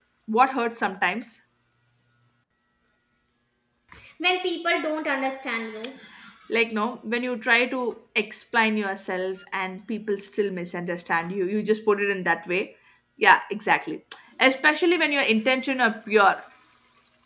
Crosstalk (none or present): none